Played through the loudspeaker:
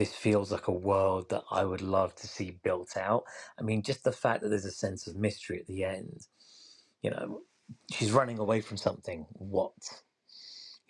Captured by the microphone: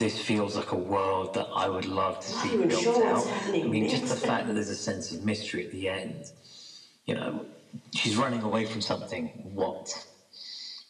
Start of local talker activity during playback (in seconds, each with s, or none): 2.2 s